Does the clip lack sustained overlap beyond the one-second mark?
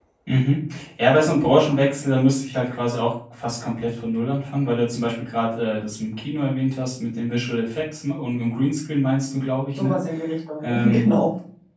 Yes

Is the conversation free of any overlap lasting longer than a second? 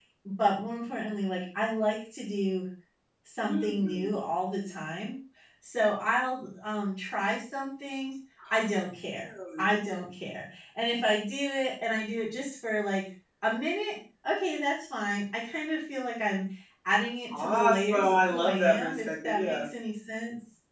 No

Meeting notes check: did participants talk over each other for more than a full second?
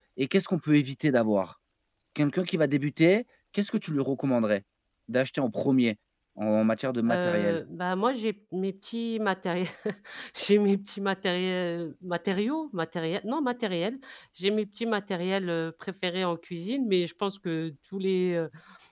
No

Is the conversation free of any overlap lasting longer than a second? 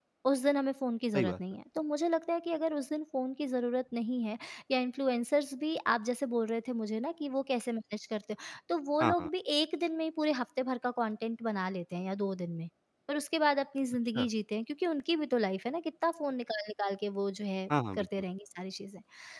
Yes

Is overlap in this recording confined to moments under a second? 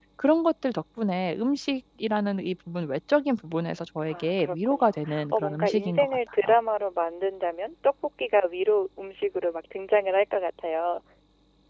No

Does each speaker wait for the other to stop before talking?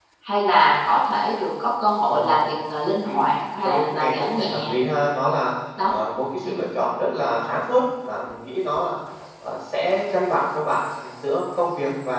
No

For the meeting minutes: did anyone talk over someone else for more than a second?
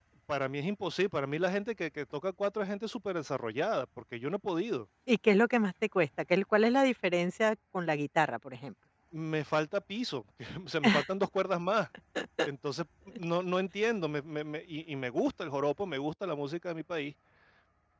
No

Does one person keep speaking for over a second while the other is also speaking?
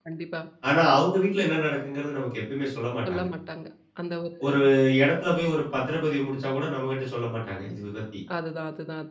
No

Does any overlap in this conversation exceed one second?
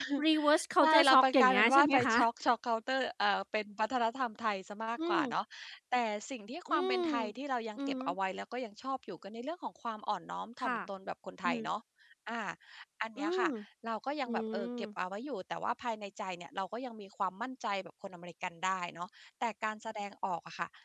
Yes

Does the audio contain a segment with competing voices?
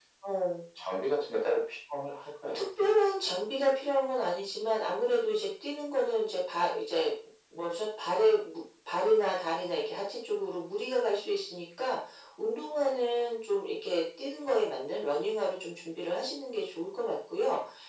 No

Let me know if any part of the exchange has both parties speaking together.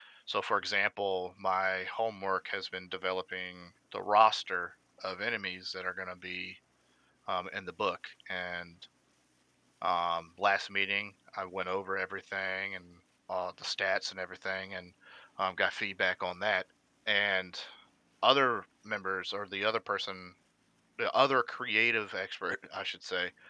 No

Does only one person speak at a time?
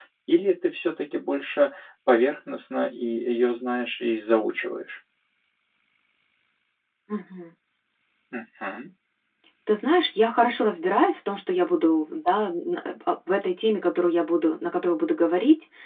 Yes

